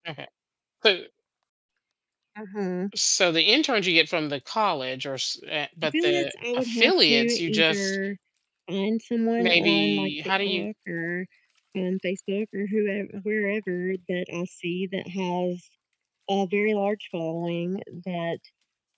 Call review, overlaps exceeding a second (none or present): present